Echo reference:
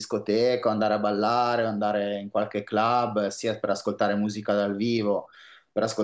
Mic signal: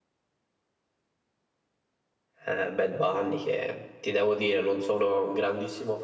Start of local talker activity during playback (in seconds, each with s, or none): 2.4 s